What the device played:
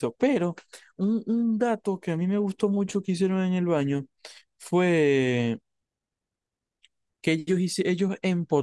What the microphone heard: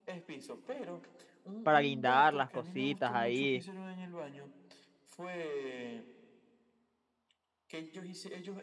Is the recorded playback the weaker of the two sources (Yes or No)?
Yes